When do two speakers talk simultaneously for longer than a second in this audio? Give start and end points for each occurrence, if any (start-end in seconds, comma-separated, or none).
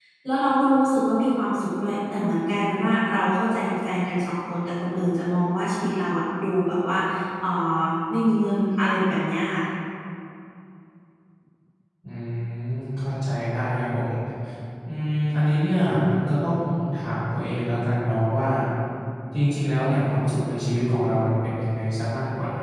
none